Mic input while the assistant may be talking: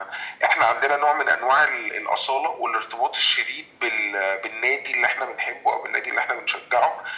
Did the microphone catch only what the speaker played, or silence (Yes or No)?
Yes